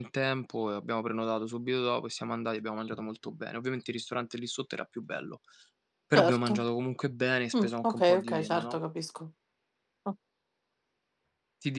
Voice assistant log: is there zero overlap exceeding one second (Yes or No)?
No